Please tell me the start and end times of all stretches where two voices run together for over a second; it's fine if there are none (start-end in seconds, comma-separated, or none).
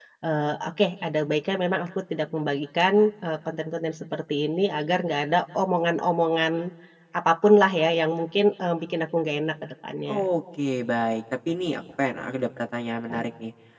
none